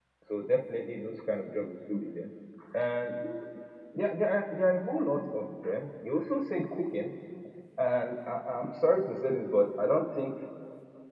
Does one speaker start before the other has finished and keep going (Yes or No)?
No